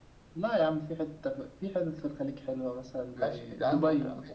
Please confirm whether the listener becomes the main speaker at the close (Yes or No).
Yes